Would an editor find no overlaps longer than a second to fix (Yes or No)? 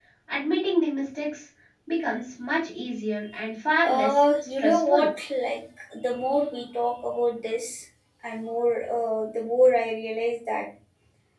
No